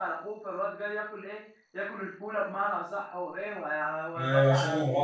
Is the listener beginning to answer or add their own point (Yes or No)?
Yes